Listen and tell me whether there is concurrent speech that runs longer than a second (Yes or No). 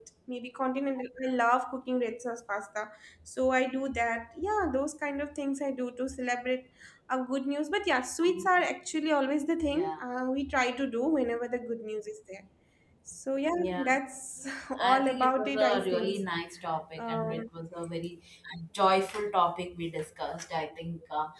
Yes